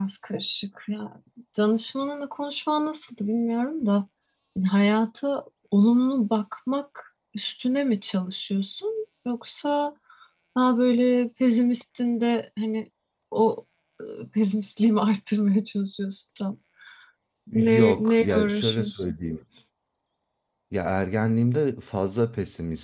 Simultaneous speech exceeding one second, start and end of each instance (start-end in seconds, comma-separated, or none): 17.8-19.0